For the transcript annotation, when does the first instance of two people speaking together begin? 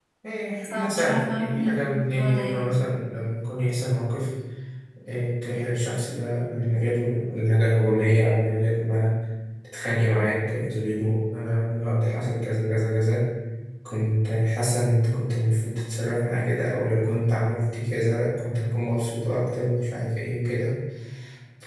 0.6 s

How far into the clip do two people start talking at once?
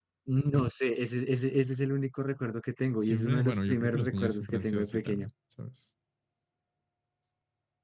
3.0 s

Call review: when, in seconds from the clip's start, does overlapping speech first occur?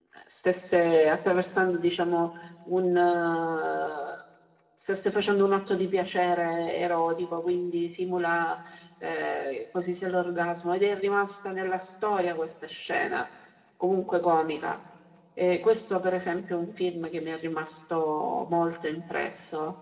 none

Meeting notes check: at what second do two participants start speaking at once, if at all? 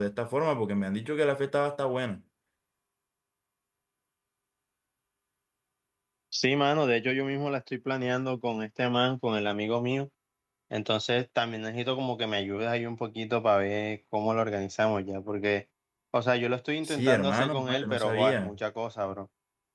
16.8 s

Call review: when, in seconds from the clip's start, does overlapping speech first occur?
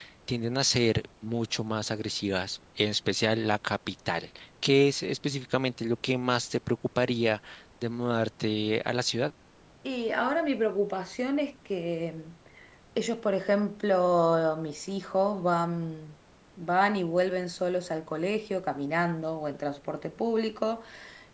none

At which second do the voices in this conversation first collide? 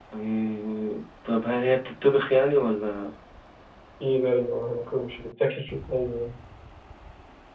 none

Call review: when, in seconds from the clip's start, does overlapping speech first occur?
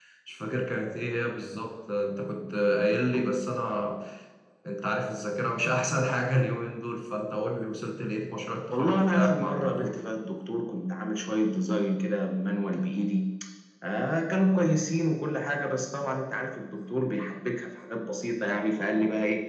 8.7 s

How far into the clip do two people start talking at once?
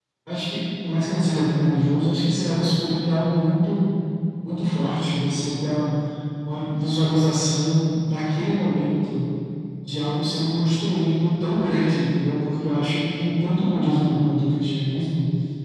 none

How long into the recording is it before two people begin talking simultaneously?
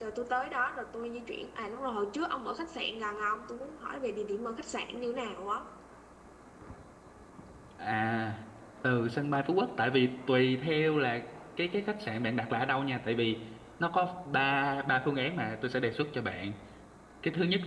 none

